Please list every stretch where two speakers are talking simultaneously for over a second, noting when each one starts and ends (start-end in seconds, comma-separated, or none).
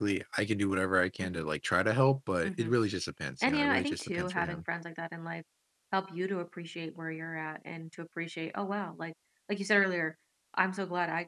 3.4-4.6